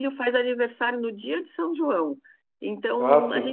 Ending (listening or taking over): listening